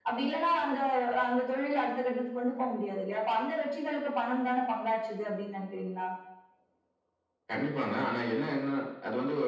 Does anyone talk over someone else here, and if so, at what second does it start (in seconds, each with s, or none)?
none